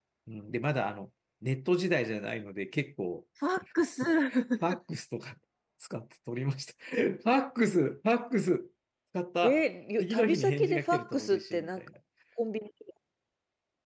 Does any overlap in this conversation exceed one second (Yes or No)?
Yes